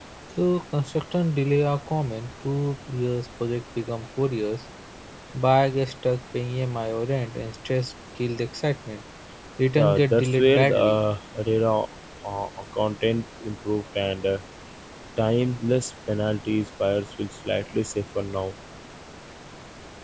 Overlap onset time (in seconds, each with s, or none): 9.8 s